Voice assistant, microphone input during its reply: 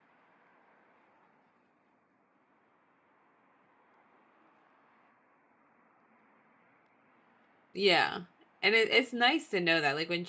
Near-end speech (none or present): present